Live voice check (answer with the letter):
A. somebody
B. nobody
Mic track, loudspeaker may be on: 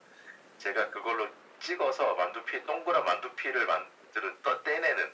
B